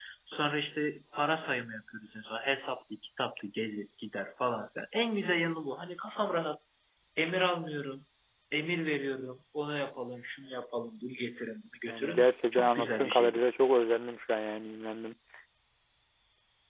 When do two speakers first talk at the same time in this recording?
11.8 s

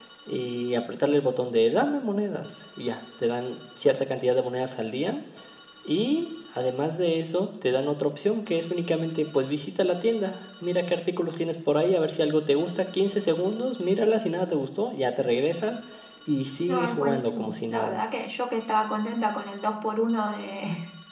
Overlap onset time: 16.7 s

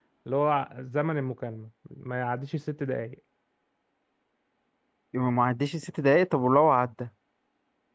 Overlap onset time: none

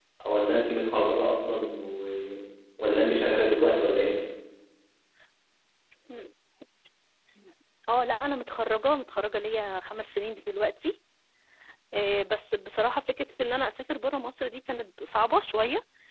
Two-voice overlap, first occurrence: none

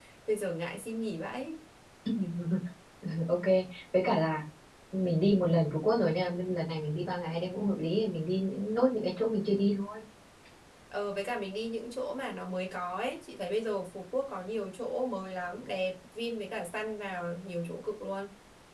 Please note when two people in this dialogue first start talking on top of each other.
none

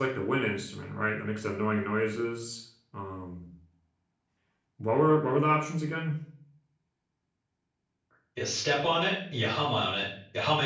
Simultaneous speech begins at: none

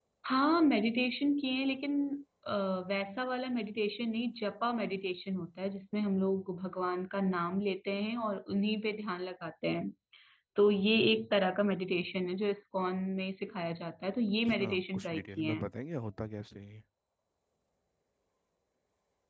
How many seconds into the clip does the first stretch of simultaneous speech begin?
14.4 s

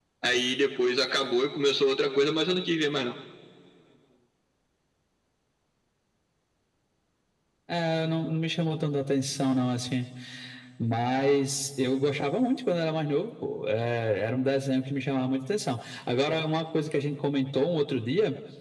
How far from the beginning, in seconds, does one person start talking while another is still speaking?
none

